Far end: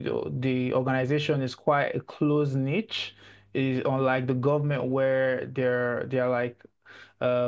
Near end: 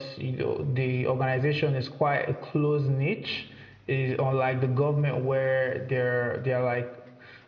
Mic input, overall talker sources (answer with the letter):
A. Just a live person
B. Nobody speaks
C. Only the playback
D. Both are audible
C